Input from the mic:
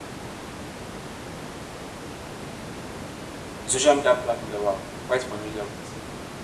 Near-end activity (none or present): present